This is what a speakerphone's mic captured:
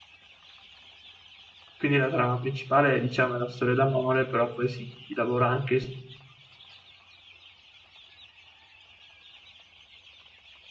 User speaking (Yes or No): Yes